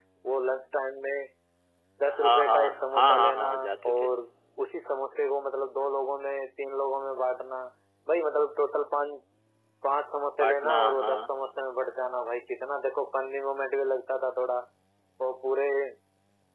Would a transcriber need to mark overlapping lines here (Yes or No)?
Yes